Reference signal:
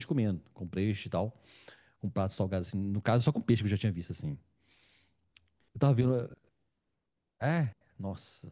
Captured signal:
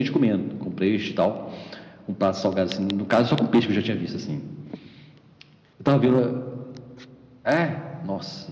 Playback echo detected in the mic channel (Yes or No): Yes